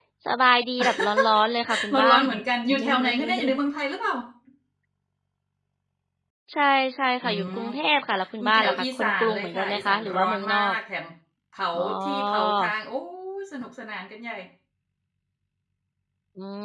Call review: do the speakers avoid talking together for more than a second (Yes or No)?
No